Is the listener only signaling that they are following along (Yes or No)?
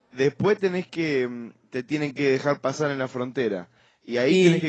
Yes